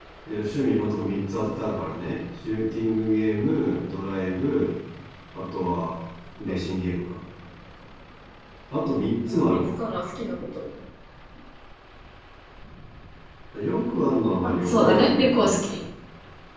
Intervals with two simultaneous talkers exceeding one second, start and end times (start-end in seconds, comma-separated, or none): 14.4-15.8